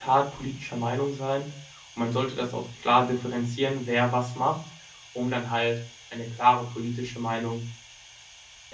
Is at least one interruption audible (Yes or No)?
No